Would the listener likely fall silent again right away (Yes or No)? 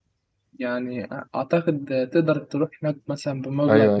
No